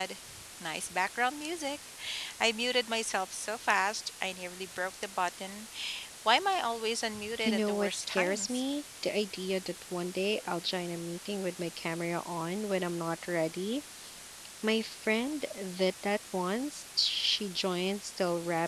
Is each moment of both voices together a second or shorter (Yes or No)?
No